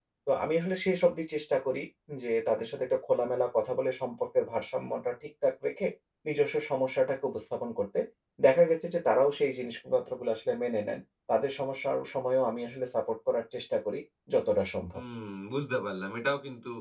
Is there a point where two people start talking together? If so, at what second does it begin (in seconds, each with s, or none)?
none